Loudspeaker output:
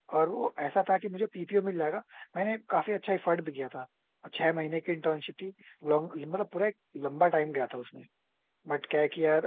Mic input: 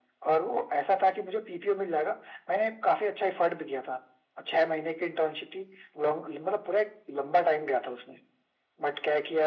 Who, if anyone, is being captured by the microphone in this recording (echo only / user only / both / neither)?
echo only